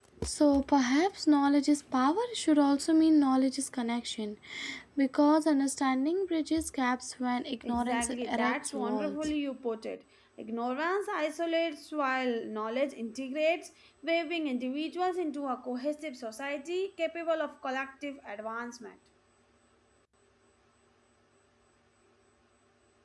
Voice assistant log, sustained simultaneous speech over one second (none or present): present